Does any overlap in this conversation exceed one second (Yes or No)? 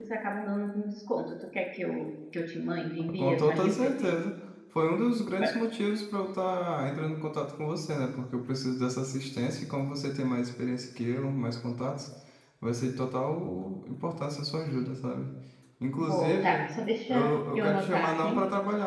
Yes